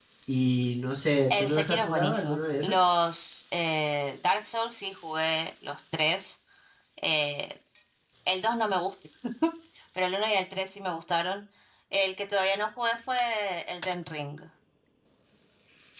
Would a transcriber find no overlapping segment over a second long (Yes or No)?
No